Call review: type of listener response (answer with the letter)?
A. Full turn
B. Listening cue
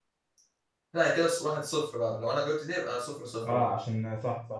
A